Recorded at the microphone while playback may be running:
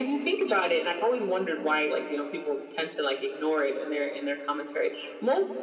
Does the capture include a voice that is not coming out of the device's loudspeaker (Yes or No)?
No